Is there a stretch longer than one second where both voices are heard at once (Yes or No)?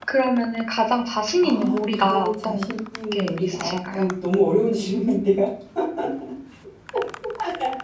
Yes